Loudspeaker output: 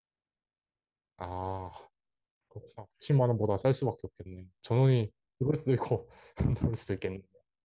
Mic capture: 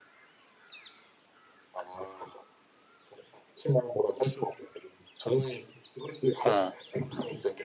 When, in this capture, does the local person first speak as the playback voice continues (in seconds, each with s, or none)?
6.4 s